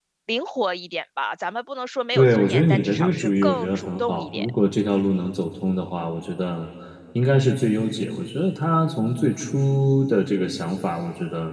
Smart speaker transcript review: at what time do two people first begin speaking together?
2.1 s

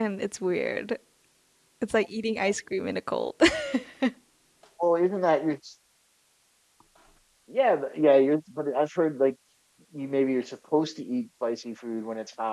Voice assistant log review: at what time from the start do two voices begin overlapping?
none

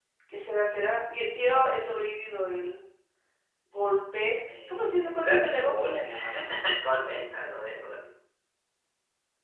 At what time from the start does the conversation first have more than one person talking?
4.5 s

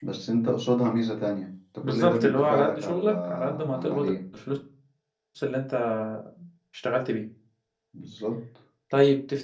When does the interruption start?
1.8 s

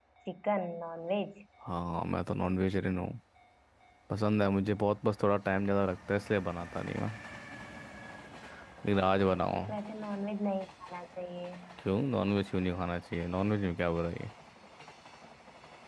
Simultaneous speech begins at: none

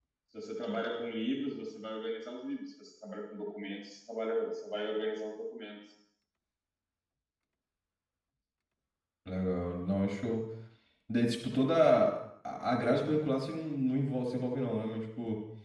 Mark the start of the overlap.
none

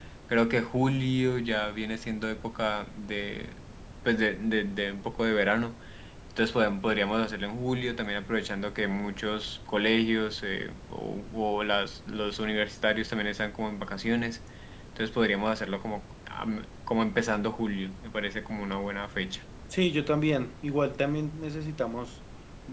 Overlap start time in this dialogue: none

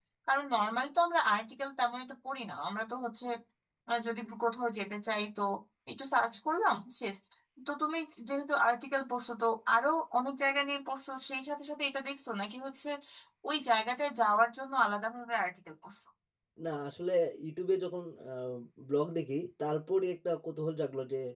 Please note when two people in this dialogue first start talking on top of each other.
none

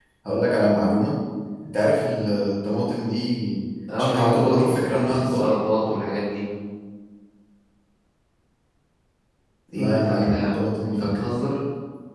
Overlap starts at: 4.0 s

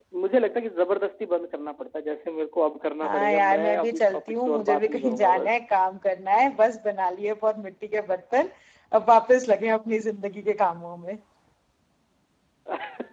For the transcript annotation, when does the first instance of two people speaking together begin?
3.0 s

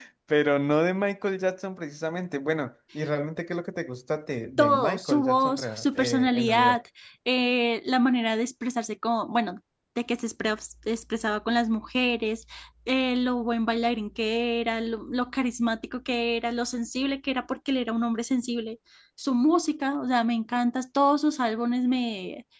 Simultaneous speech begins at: 4.6 s

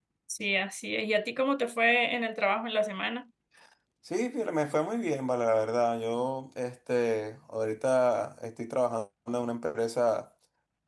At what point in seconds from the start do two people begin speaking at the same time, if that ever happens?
none

